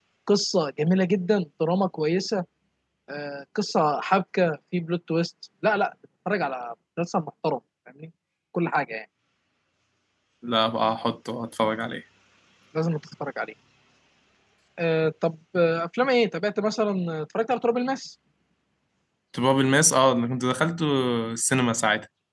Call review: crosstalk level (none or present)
none